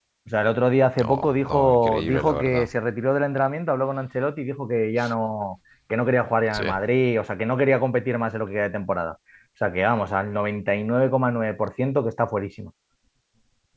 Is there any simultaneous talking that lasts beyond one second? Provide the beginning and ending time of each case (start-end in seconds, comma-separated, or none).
1.0-2.7